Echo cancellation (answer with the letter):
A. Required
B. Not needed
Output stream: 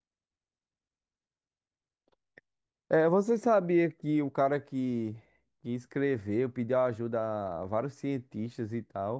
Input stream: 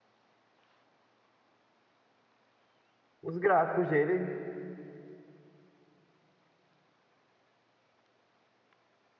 B